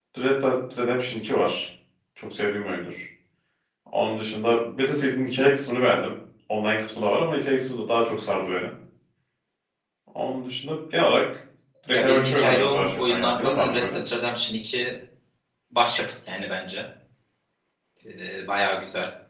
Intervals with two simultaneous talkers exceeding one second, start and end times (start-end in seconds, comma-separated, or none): 11.9-14.0